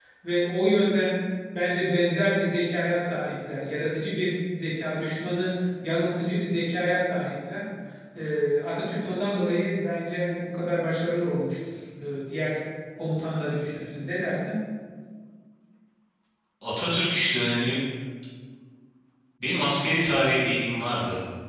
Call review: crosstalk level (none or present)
none